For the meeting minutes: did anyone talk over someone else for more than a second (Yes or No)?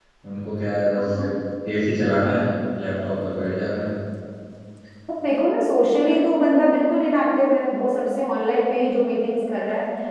No